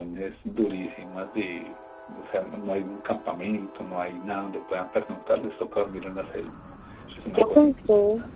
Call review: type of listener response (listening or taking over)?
taking over